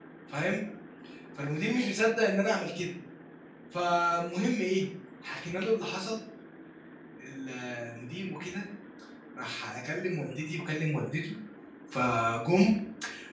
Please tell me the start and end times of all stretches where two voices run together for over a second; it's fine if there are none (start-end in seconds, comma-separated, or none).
none